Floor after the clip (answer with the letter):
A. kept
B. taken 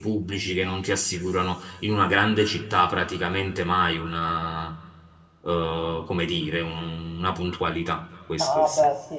B